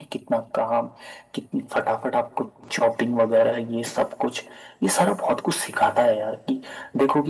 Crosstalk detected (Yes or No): No